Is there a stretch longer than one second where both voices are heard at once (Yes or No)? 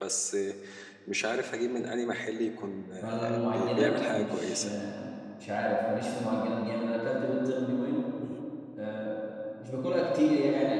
Yes